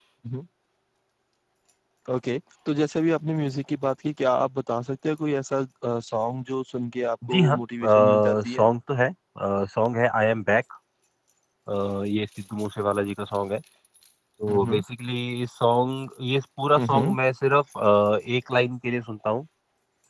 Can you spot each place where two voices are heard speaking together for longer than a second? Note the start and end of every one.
7.3-8.7

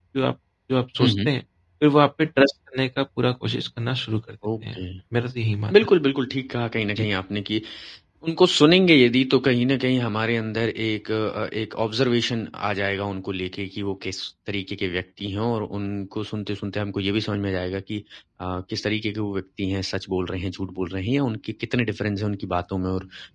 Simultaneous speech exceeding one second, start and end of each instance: none

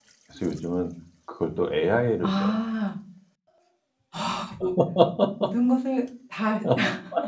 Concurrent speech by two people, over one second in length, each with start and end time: none

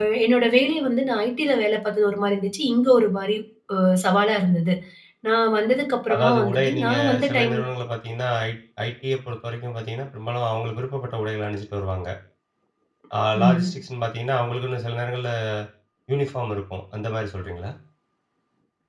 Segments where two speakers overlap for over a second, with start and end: 6.1-7.7

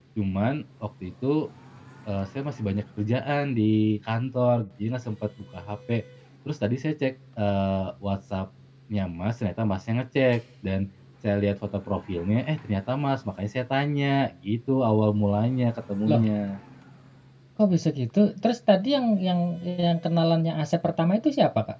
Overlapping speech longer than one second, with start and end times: none

